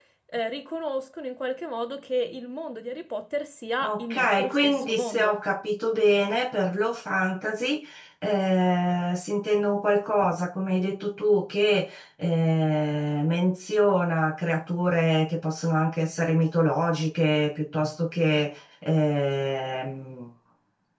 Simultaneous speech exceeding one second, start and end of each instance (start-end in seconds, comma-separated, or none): 3.8-5.4